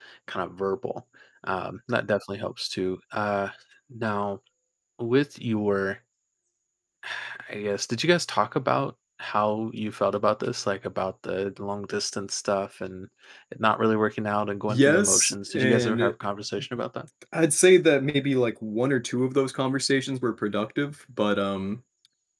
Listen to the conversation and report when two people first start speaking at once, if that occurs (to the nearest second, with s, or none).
15 s